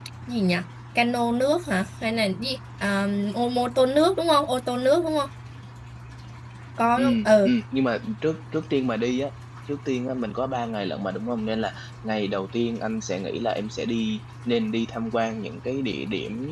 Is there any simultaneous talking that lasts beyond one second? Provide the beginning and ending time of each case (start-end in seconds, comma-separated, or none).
none